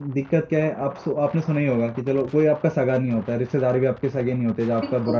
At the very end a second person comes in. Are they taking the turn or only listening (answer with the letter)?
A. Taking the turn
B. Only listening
A